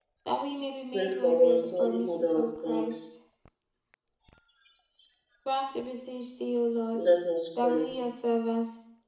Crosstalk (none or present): present